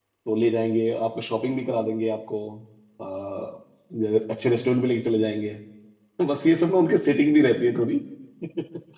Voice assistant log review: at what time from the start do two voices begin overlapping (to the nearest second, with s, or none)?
none